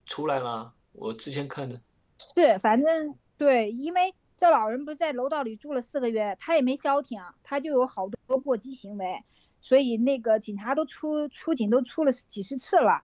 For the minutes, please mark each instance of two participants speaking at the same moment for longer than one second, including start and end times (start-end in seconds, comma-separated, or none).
none